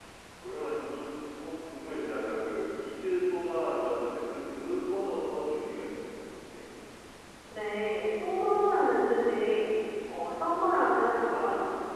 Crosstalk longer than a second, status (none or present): none